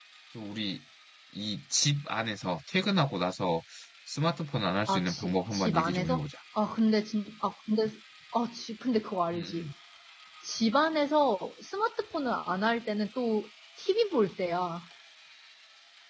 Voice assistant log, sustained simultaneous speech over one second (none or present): present